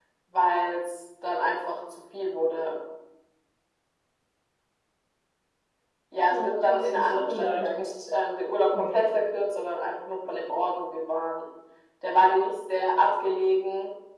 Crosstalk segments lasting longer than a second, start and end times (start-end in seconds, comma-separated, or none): 6.3-7.7